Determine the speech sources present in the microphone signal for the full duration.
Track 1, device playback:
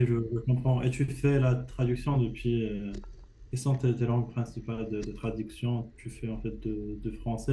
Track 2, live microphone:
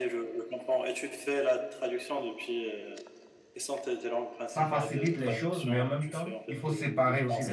both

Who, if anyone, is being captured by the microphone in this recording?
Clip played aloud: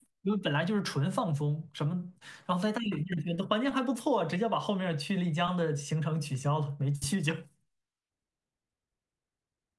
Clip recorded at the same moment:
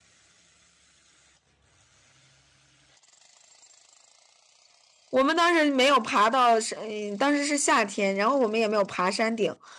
user only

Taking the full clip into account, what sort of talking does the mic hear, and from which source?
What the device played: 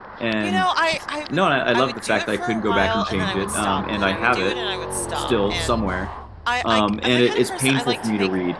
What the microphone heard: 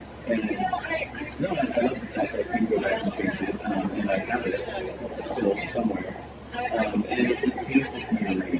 echo only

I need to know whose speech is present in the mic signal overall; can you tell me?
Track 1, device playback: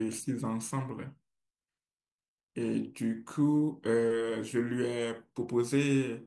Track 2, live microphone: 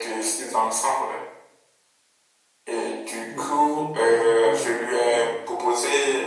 both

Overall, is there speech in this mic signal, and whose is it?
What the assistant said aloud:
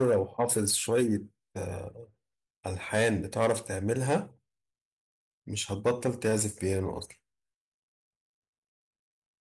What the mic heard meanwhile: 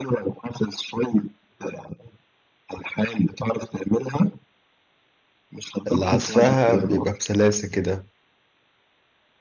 both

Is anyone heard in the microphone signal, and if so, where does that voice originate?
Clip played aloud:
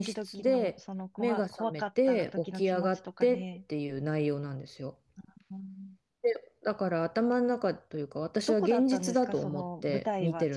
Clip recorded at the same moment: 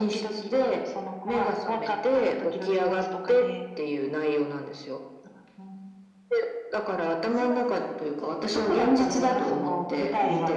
both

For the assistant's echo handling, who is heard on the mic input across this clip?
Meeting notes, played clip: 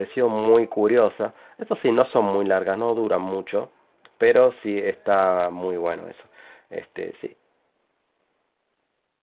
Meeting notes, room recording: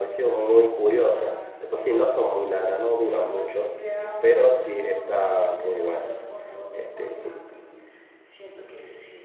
both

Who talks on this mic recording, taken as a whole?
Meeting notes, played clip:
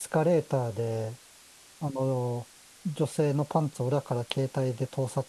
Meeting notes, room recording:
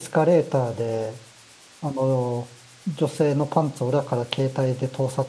echo only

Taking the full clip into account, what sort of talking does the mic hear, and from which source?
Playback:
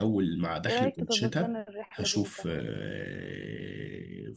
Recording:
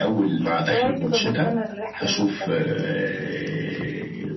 echo only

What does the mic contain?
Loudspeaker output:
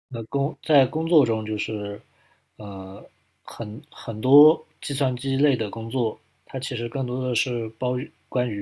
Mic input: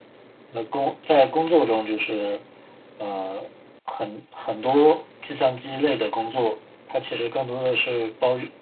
echo only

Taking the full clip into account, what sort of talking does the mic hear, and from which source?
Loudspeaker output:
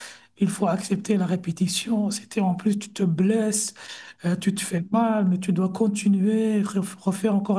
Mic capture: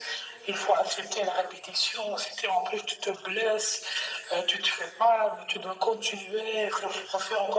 echo only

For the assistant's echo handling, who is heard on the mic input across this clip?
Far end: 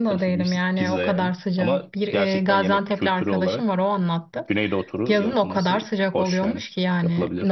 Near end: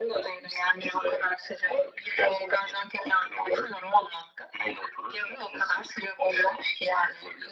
echo only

